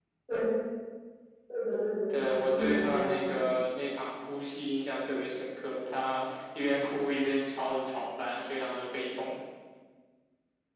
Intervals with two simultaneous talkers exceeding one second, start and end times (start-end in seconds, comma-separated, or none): 2.2-3.5